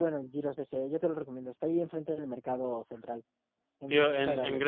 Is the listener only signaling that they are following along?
No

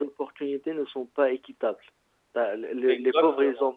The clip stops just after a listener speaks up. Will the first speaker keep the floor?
Yes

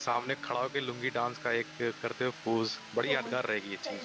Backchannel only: No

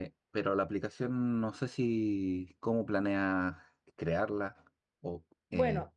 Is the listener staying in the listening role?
No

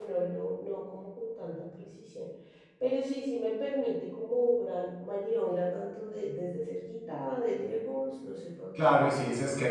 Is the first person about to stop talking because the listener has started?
Yes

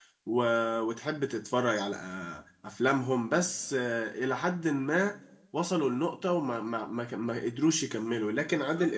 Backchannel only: Yes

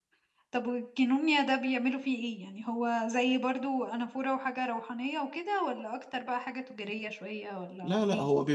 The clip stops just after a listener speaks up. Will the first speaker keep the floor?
No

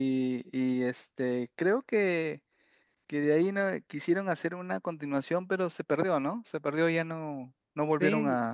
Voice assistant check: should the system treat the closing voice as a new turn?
Yes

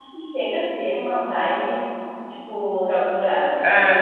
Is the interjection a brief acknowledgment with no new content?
No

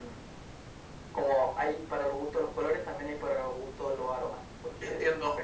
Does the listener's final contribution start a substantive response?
Yes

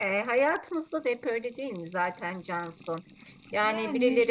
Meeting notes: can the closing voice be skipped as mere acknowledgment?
Yes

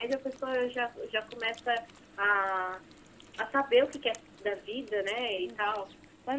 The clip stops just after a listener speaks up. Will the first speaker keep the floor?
No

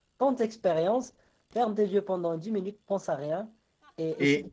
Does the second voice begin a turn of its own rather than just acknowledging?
No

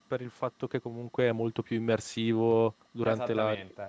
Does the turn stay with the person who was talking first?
No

